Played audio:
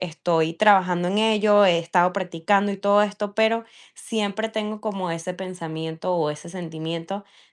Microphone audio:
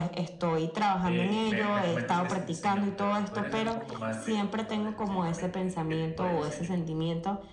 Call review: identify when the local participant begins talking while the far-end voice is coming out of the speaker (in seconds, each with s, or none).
1.0 s